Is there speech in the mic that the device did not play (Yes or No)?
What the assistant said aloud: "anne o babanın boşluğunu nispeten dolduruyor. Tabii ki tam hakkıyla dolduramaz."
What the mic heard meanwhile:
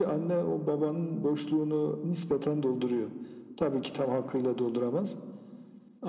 No